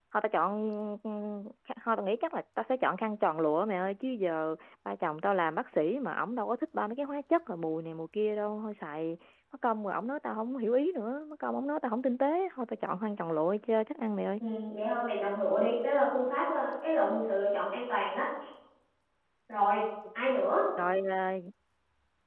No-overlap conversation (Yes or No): Yes